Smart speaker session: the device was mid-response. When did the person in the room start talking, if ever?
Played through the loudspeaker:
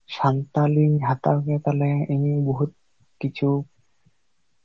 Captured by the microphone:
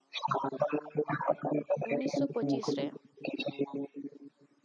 2 s

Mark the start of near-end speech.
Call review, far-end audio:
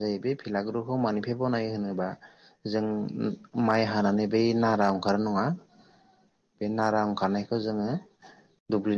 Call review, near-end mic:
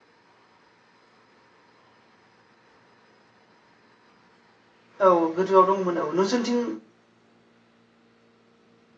5 s

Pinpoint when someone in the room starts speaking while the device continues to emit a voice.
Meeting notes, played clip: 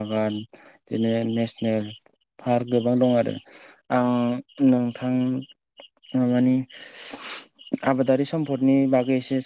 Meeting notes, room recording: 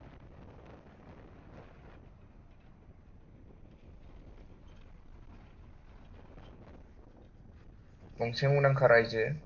8 s

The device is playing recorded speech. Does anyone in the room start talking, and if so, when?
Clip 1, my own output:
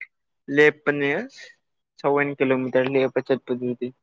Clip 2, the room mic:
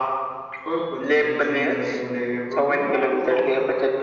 1 s

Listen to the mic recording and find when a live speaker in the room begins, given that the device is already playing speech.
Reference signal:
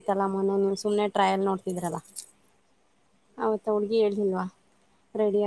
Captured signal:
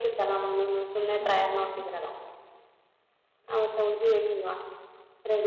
1 s

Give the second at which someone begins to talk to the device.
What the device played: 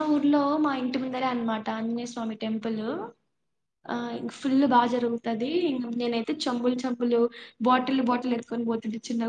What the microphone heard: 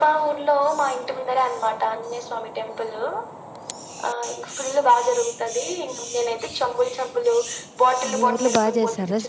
8 s

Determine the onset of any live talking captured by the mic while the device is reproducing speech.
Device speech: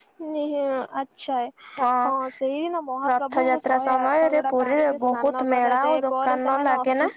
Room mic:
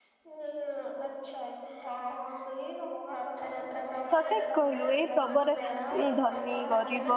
4 s

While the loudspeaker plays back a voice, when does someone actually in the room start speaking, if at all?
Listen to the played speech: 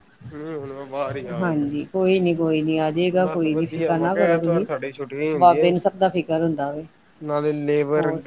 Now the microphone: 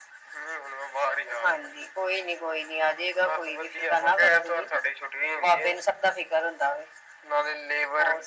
none

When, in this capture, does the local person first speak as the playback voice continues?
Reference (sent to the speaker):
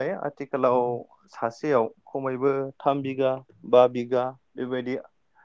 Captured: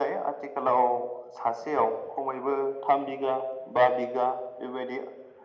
none

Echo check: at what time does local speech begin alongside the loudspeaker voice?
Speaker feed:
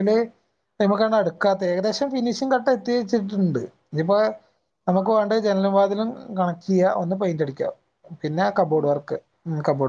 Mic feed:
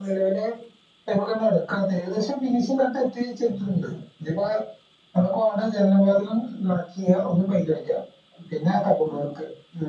none

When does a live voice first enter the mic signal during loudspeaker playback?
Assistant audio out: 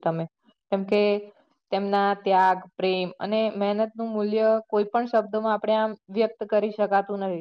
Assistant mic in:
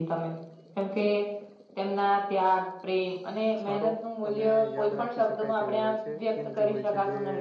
4 s

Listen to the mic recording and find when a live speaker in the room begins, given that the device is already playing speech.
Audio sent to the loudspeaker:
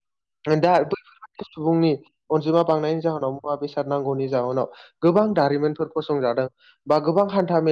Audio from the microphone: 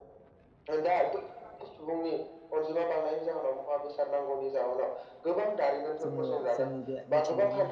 6 s

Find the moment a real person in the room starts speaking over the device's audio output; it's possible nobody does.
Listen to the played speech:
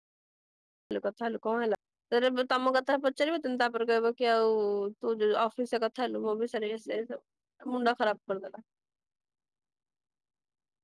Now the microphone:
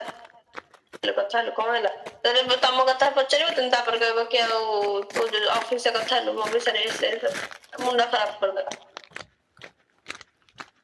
none

